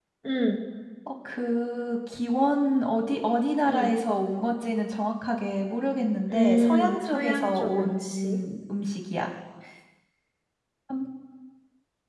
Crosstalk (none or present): present